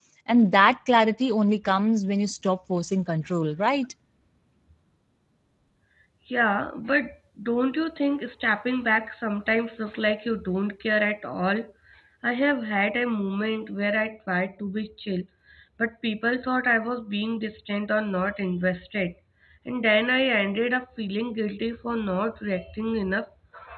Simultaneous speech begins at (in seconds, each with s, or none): none